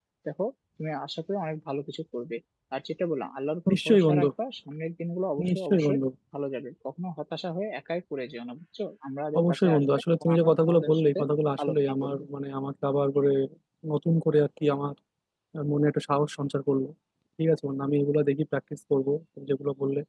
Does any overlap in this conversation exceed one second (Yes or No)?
Yes